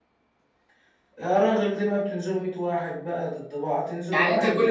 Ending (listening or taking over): taking over